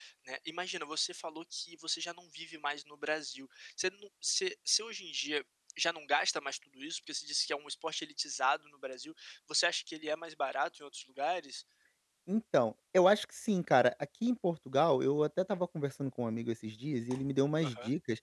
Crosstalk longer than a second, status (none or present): none